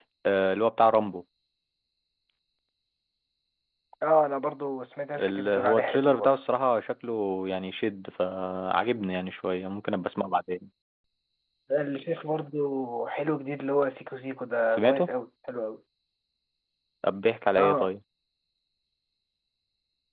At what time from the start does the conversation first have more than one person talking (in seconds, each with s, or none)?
5.2 s